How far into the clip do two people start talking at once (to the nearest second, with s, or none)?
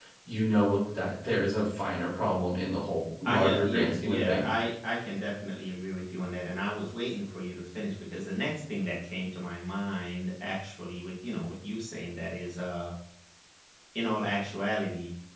3 s